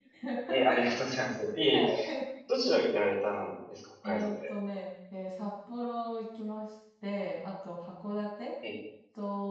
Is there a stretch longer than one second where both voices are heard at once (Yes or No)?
No